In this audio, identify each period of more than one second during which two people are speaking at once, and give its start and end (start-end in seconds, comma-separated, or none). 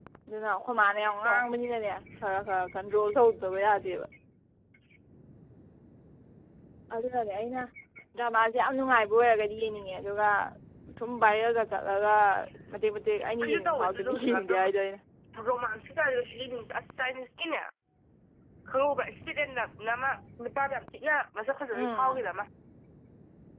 13.4-14.6